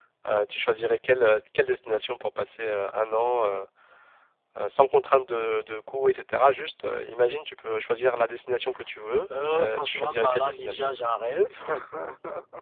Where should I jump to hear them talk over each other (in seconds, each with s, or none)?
9.4 s